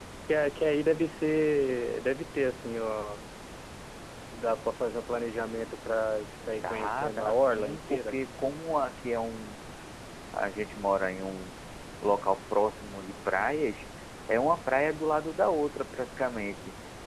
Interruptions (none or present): present